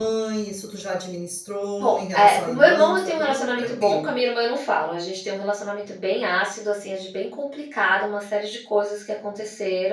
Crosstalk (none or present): present